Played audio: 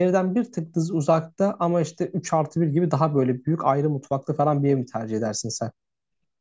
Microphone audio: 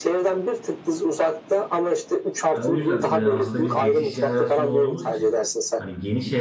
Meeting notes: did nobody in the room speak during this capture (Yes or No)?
No